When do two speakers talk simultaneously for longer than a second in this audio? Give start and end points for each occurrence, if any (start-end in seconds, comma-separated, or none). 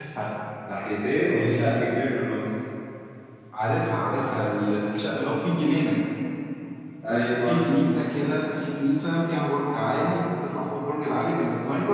none